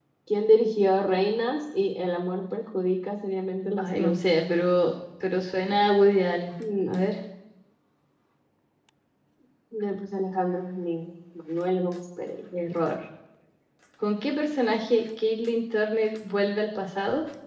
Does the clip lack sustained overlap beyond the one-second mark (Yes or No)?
Yes